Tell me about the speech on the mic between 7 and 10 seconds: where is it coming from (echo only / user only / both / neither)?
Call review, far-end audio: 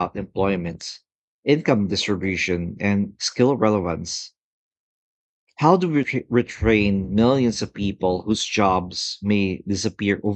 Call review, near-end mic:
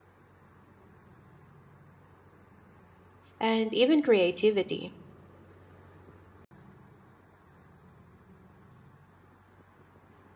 neither